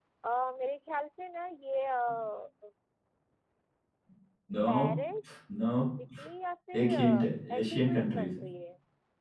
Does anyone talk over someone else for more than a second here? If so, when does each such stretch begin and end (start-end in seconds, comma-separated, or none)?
6.8-8.5